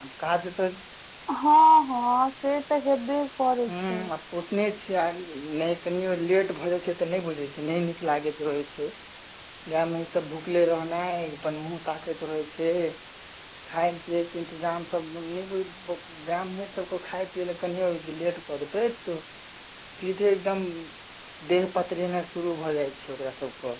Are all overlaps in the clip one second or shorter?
Yes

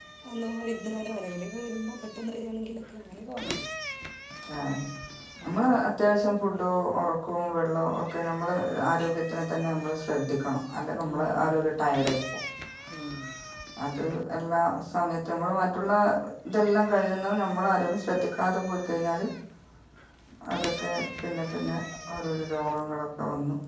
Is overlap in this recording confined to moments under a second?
Yes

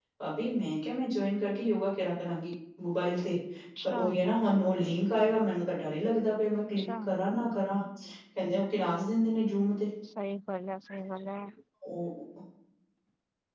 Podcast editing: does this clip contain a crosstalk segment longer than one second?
No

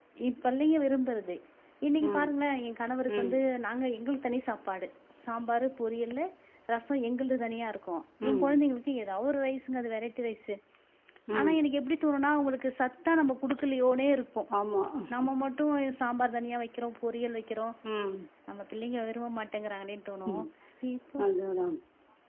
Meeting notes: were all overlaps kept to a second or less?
Yes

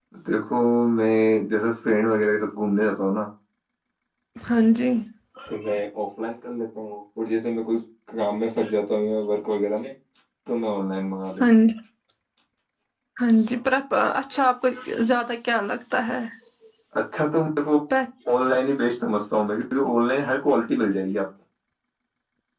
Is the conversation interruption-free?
Yes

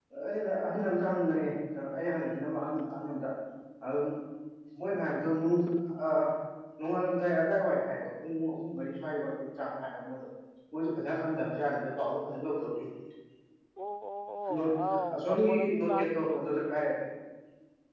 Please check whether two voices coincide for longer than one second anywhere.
Yes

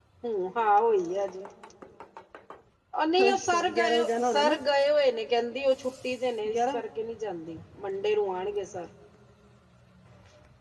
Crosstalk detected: Yes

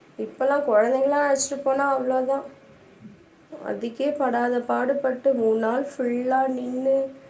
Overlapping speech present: No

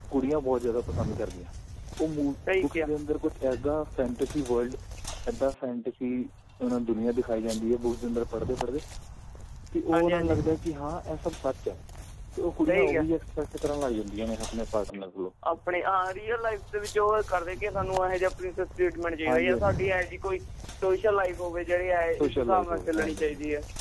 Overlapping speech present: Yes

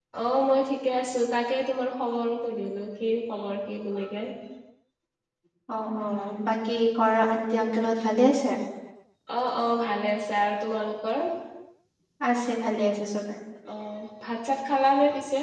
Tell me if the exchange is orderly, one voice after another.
Yes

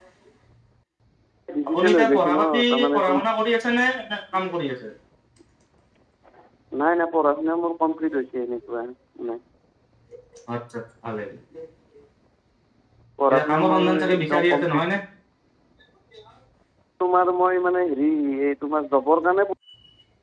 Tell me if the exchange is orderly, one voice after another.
No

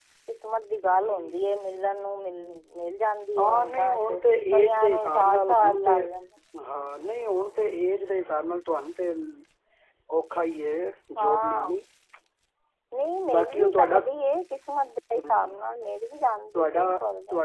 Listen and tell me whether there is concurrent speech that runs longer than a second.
Yes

